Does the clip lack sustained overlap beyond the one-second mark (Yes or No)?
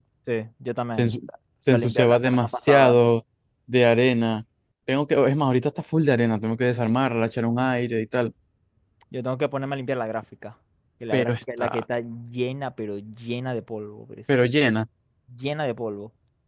No